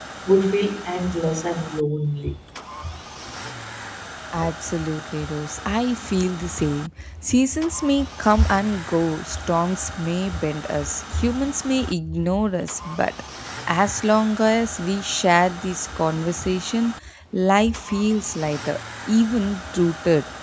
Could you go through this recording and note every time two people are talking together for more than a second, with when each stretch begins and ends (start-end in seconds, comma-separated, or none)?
none